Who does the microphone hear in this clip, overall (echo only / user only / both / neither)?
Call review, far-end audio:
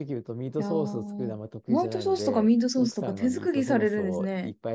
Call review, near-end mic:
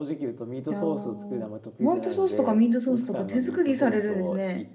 echo only